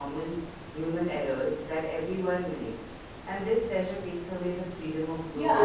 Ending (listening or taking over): taking over